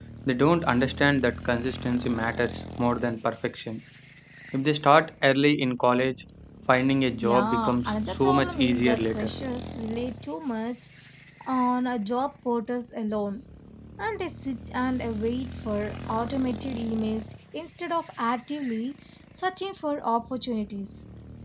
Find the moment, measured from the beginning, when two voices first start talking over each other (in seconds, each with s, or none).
7.2 s